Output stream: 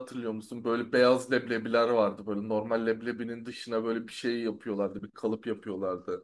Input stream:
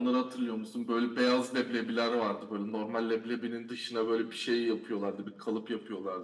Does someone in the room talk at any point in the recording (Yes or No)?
No